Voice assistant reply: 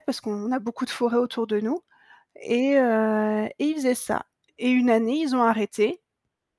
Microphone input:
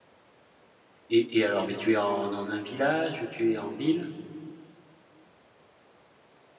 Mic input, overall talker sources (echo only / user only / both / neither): user only